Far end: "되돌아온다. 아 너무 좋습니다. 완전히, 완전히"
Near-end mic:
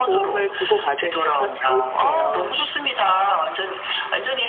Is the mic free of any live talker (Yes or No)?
No